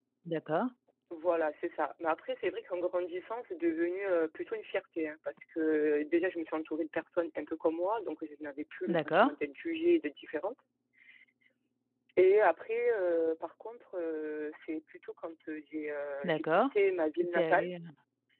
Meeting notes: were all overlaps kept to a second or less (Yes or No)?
Yes